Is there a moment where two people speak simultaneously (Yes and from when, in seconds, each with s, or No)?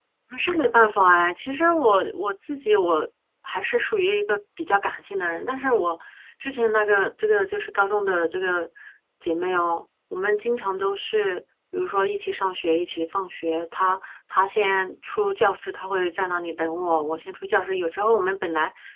No